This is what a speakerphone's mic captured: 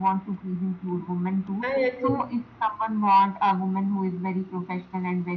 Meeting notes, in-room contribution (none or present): present